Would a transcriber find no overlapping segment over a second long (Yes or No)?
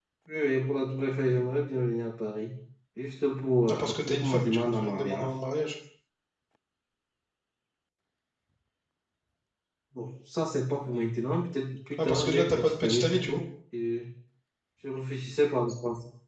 No